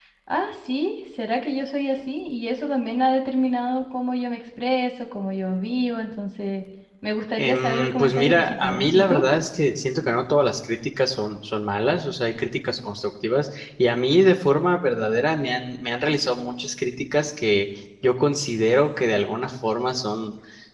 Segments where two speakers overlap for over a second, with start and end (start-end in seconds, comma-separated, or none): 7.4-9.2